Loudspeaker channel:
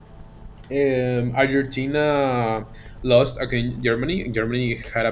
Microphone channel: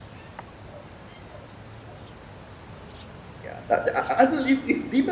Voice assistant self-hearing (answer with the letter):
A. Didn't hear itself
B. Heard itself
A